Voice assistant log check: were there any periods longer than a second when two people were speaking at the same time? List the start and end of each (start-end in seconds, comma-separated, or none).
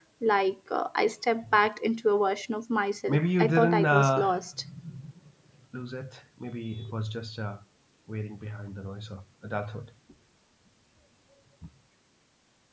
3.1-4.4